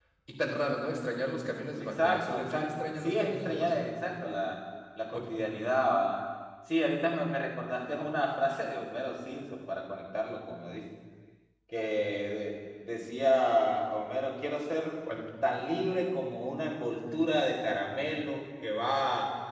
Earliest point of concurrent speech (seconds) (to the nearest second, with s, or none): 2 s